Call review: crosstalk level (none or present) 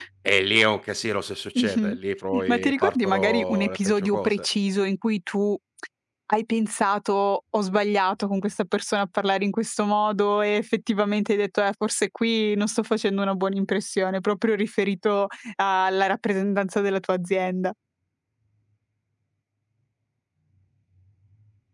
present